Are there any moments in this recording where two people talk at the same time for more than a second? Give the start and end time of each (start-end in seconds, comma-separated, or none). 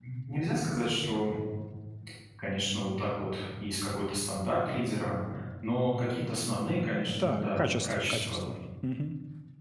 7.2-8.4